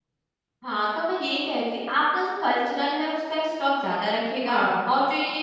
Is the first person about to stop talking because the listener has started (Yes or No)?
No